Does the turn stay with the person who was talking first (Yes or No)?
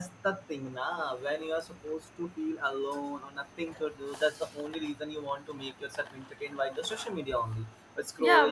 No